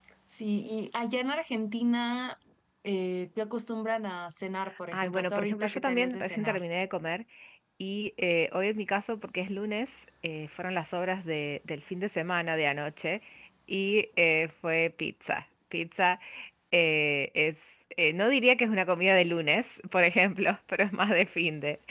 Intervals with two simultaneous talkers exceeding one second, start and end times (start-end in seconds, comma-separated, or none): 4.9-6.6